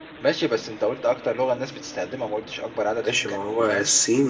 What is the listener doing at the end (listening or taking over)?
taking over